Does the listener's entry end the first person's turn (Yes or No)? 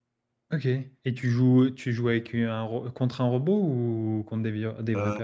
Yes